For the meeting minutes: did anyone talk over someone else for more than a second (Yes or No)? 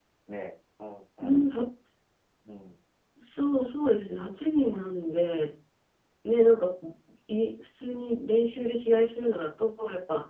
No